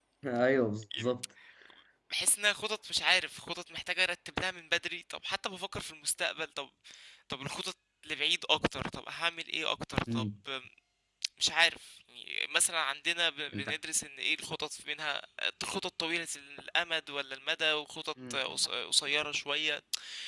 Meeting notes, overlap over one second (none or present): none